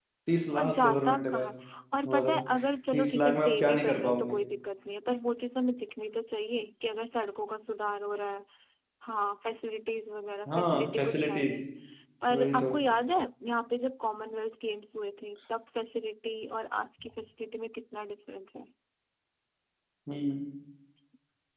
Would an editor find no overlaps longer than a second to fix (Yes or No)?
No